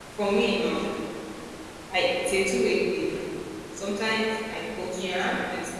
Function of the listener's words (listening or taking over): listening